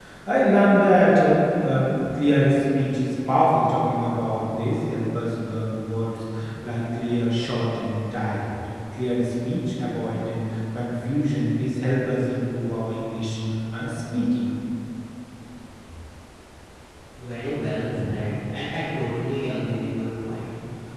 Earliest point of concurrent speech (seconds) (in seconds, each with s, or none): none